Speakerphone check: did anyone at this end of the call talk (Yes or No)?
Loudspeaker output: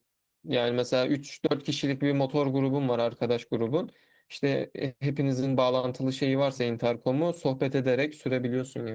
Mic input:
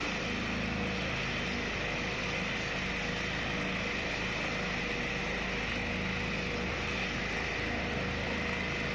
No